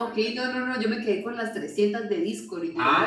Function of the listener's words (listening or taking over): taking over